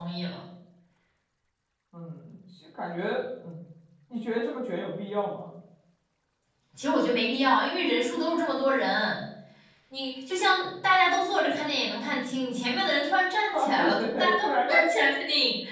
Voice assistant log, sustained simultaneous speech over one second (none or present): present